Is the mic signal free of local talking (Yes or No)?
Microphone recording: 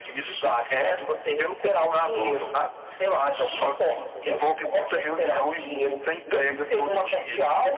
Yes